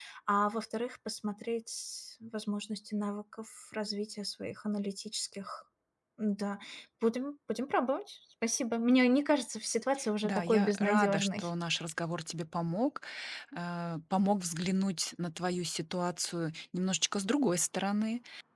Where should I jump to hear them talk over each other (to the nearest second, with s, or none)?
10 s